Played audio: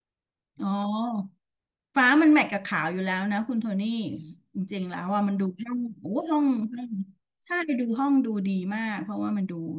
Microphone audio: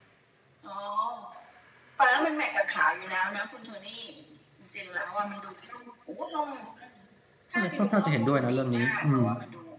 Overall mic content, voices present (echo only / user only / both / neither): both